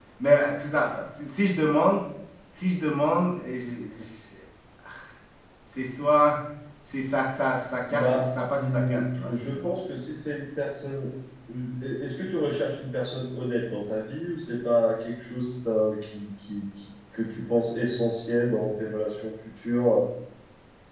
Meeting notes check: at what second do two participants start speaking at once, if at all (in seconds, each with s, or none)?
7.8 s